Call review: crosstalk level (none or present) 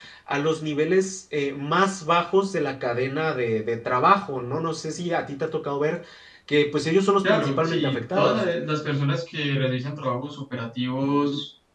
present